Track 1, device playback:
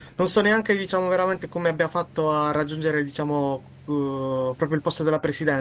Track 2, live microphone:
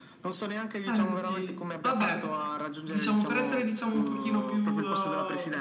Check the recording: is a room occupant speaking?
Yes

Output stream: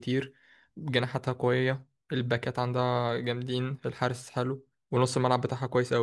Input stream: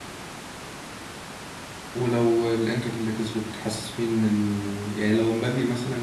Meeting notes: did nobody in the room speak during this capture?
No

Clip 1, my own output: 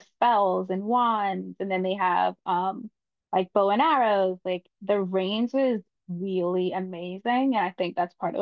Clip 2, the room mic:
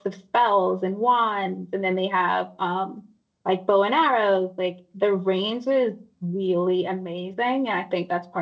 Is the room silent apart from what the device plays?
Yes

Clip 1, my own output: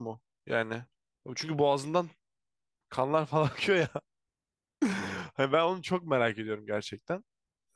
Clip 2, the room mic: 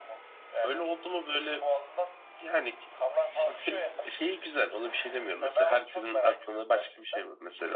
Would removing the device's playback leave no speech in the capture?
No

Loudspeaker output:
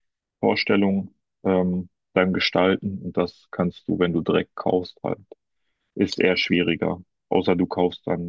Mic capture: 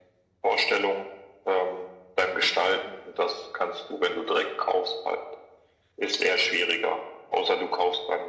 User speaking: No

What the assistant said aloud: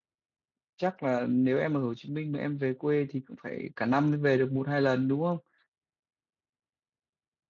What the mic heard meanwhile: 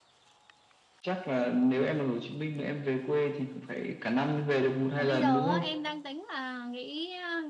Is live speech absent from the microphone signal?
No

